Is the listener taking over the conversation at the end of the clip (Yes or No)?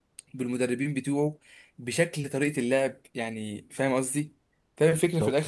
No